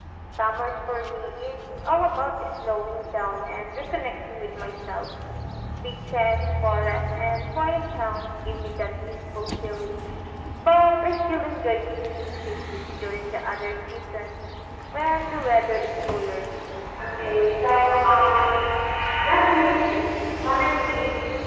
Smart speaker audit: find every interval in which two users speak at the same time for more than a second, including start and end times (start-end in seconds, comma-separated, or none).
none